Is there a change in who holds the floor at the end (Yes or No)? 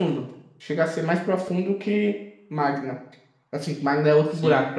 Yes